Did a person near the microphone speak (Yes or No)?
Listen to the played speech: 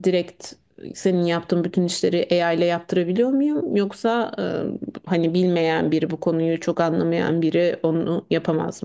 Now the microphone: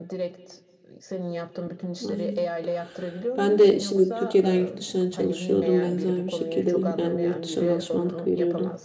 Yes